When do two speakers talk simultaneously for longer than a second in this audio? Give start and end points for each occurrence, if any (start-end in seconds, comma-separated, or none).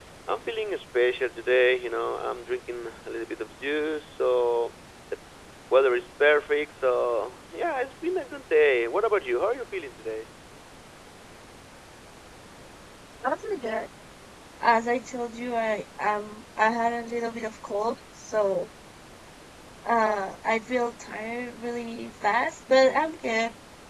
none